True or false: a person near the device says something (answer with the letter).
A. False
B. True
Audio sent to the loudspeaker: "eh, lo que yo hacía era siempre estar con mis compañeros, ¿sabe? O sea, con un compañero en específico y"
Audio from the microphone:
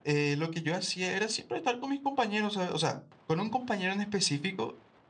A